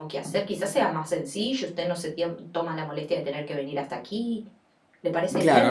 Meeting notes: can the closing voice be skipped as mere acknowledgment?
No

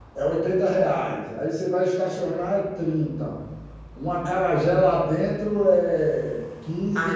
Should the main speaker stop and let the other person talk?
Yes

